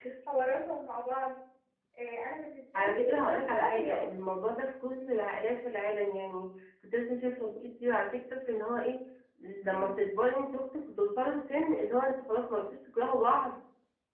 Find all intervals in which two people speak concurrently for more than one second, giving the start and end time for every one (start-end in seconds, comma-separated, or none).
2.8-4.0